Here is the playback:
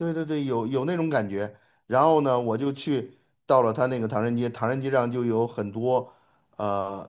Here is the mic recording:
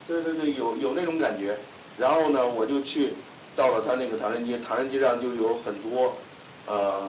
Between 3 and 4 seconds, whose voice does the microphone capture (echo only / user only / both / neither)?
echo only